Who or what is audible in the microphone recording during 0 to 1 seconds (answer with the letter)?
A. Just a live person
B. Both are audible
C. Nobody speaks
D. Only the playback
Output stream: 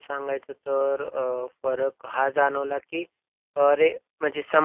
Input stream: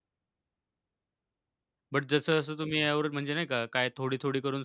C